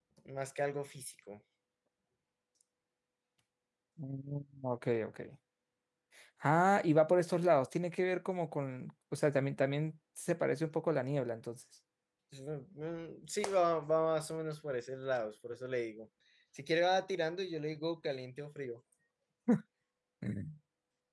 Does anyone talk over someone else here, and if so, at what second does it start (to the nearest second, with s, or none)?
none